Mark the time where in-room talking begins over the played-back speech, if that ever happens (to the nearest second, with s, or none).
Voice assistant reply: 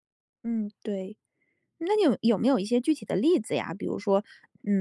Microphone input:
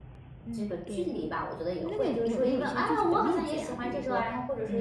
1 s